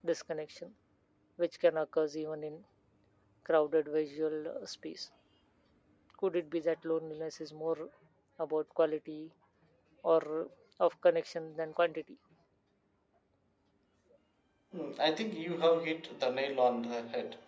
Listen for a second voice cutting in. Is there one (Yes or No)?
No